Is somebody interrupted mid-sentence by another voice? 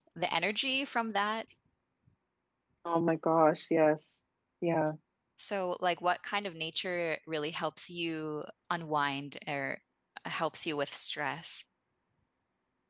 No

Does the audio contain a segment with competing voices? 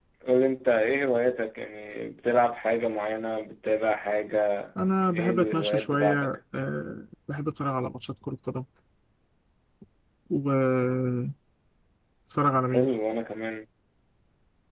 Yes, from 5.1 s

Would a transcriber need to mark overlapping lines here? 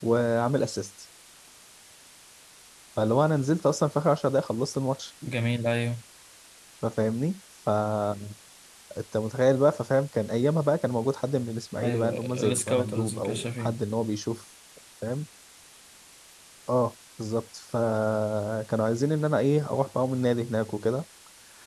Yes, from 11.8 s

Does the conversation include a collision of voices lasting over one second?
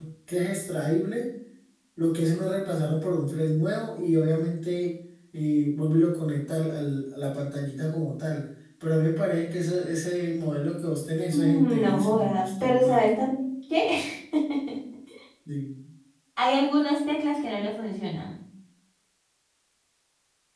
Yes, from 11.3 s

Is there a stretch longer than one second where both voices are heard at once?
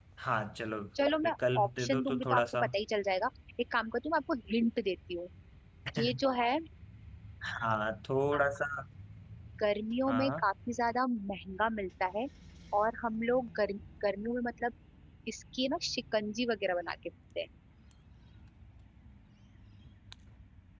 Yes, from 1.2 s

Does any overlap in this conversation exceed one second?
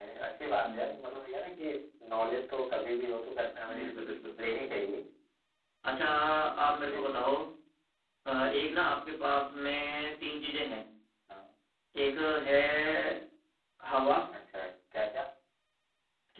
No

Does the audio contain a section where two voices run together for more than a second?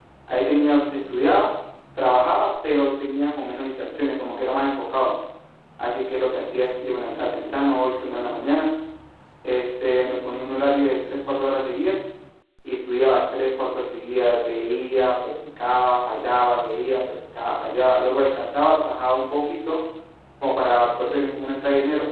No

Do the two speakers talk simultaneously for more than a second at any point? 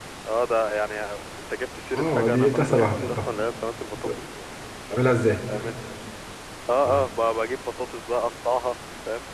Yes, from 1.9 s

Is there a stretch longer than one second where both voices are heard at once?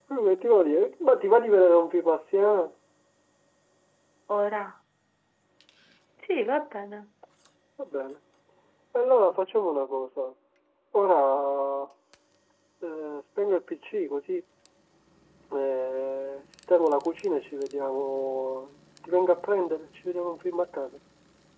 No

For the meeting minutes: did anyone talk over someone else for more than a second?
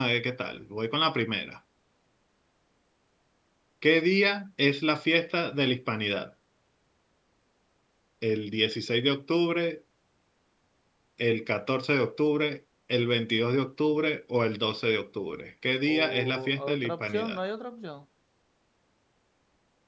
Yes, from 15.8 s

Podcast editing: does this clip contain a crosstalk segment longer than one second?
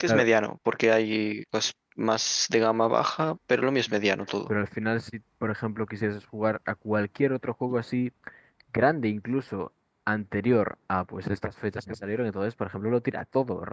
No

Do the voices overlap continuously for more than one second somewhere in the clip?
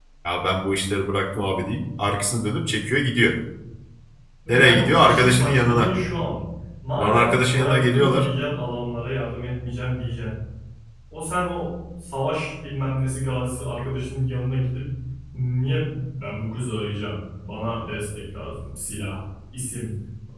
Yes, from 4.5 s

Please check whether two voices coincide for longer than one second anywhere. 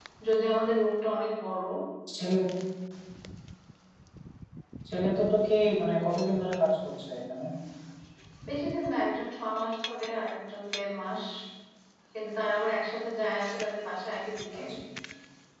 No

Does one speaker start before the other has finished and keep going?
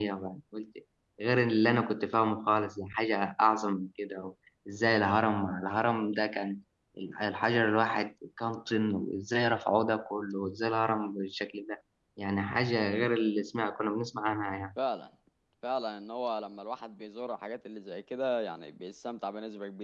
No

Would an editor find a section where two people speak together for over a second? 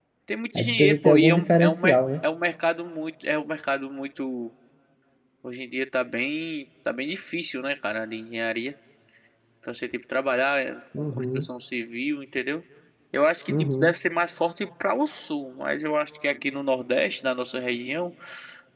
Yes, from 0.6 s

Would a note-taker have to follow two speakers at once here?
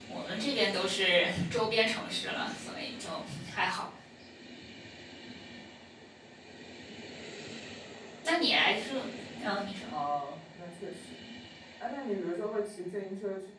No

